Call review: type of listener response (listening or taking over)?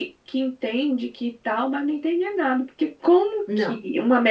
listening